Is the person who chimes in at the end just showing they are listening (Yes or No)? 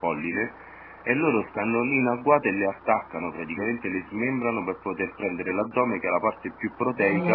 Yes